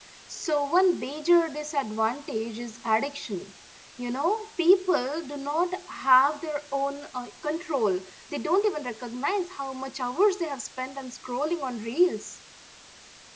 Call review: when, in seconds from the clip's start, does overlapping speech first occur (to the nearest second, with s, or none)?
none